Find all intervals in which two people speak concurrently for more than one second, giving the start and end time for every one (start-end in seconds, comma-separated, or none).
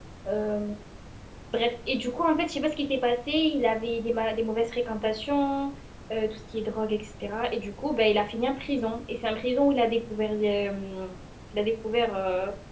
none